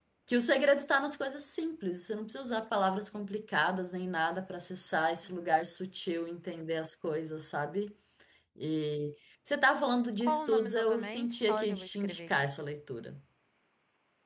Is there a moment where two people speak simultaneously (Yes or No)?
Yes